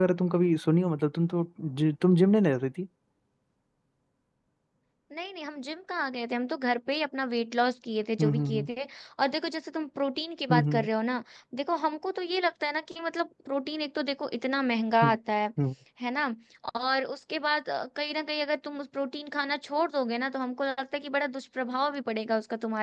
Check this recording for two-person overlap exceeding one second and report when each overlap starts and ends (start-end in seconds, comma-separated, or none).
none